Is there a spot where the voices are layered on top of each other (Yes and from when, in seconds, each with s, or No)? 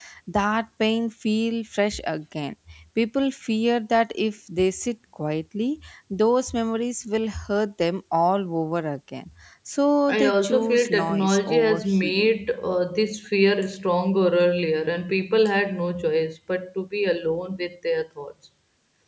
Yes, from 10.1 s